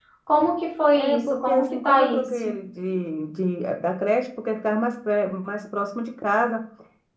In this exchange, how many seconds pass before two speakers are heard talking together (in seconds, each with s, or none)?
0.9 s